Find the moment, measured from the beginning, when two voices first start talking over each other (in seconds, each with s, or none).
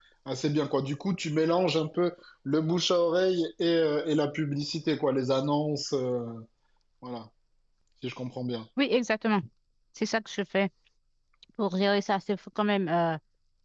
none